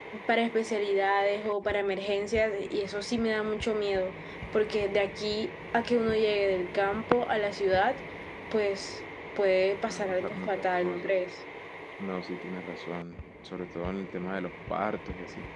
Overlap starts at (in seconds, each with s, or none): 9.9 s